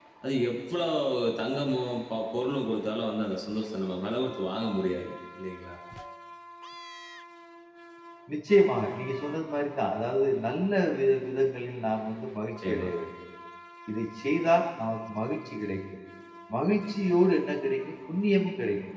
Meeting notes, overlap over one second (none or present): none